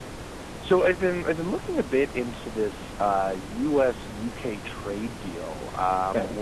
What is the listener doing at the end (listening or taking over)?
listening